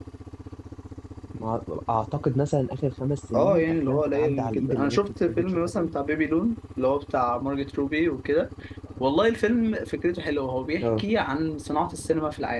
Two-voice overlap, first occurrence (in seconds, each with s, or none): 3.3 s